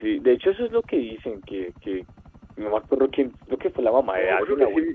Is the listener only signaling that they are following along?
No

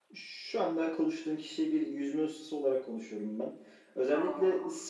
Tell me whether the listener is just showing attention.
Yes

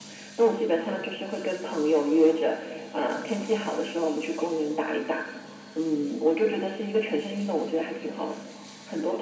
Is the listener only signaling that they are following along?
No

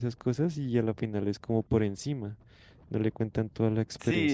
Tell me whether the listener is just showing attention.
No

